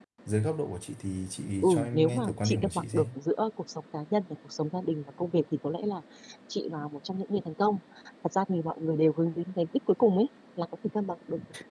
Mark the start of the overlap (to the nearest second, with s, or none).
2 s